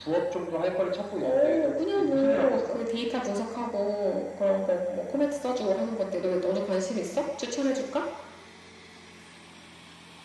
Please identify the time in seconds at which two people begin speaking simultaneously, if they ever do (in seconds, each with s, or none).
1.2 s